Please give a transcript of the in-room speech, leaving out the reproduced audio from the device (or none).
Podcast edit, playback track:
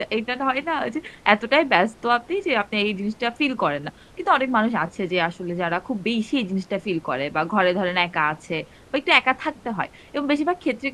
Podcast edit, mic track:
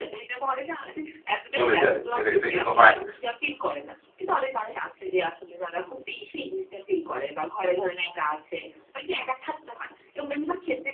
চলে যায়, এটা এটা কিন্তু হয় না।